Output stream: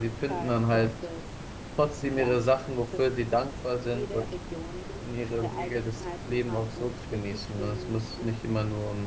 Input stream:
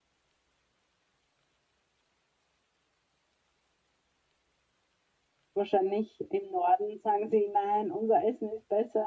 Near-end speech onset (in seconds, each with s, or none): 5.5 s